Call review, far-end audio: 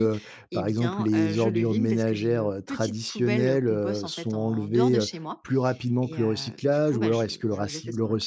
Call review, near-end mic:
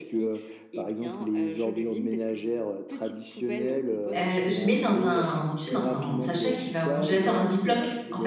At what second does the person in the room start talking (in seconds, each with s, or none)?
4.2 s